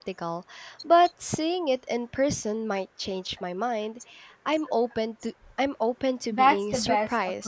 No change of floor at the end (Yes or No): No